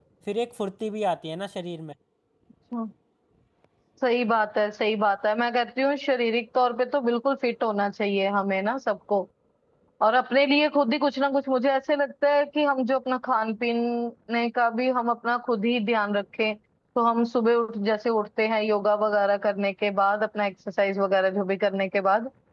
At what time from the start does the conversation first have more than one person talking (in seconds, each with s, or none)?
none